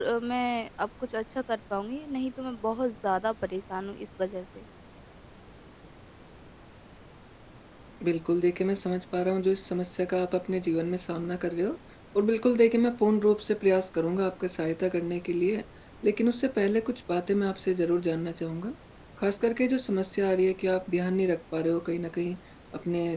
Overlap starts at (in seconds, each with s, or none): none